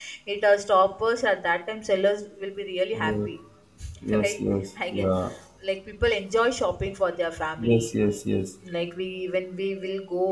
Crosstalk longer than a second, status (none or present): none